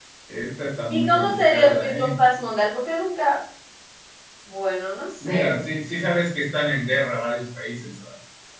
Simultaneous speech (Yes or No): Yes